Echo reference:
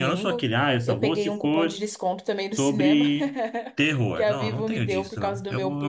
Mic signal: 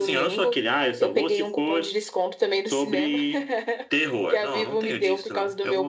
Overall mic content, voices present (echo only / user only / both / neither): echo only